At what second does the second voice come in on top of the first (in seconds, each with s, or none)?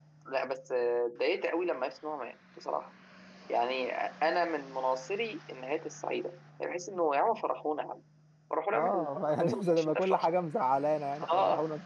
8.7 s